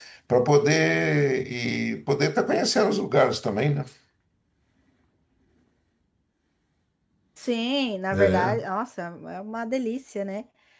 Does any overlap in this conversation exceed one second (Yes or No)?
No